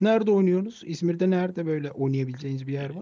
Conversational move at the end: taking over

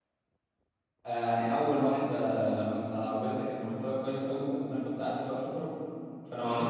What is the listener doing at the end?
listening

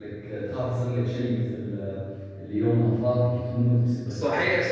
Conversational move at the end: taking over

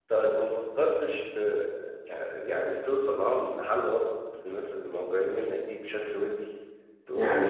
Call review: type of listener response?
taking over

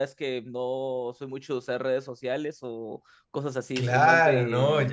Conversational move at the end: taking over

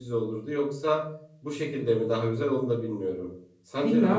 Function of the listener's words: taking over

